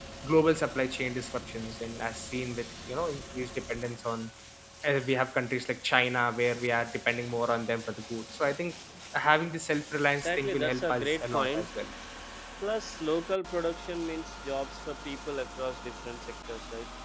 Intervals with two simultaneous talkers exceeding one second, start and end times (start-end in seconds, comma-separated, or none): 10.2-11.7